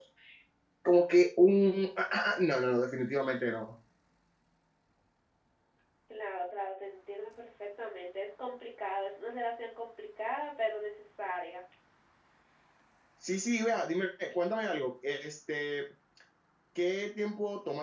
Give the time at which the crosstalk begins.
none

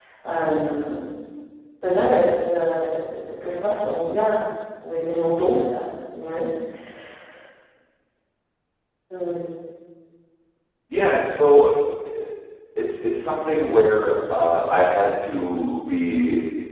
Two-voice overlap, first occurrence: none

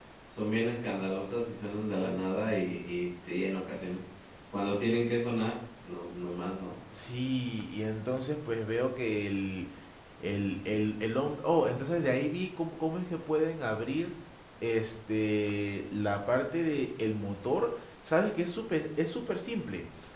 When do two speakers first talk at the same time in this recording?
none

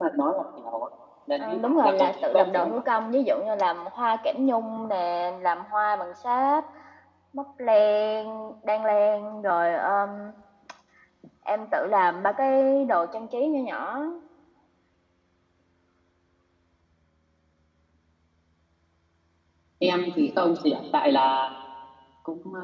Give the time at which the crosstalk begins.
1.4 s

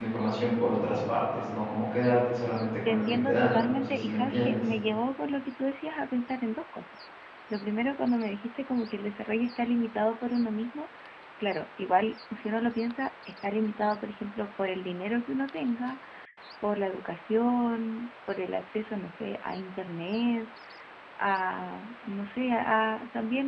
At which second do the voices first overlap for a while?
2.9 s

